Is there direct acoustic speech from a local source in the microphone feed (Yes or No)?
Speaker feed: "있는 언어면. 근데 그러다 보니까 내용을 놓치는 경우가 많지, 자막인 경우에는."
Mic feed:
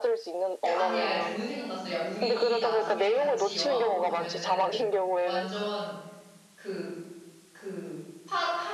Yes